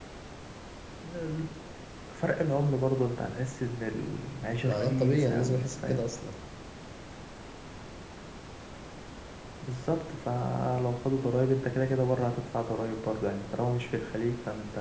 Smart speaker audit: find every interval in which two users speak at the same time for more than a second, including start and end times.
4.7-6.1

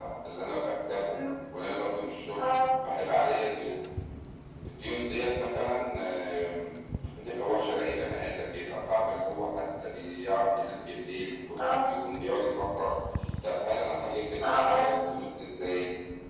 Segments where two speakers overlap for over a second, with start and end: none

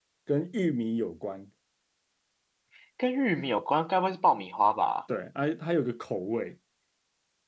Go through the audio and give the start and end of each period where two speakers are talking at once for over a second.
none

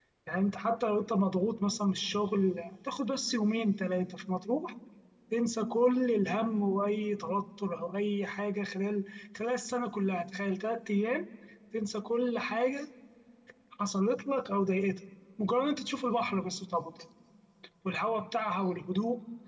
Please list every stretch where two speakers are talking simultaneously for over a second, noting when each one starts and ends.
none

